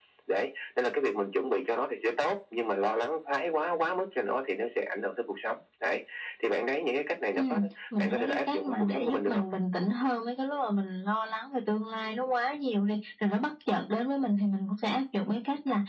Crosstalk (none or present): present